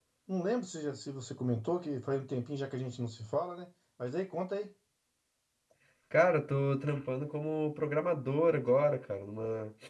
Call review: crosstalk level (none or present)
none